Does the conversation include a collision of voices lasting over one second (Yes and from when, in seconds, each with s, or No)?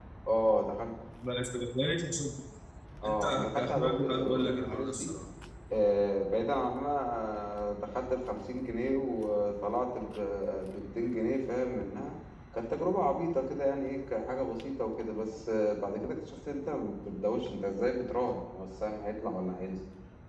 Yes, from 3.0 s